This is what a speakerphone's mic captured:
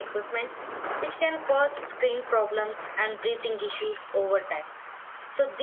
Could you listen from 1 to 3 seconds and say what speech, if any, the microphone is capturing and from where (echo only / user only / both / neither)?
user only